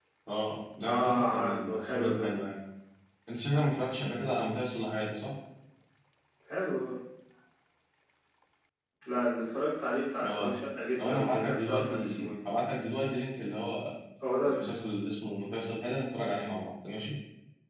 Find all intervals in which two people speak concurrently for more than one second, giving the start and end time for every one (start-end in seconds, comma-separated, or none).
0.9-2.1, 11.0-12.3